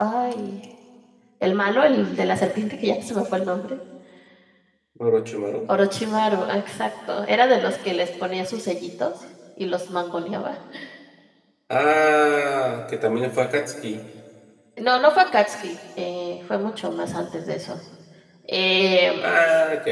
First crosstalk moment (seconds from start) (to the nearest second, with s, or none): none